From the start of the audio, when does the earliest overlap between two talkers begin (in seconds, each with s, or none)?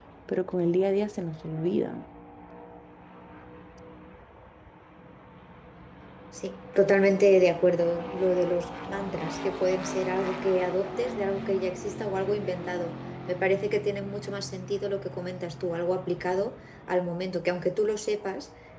none